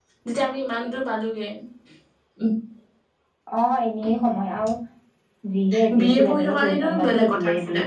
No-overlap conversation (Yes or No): No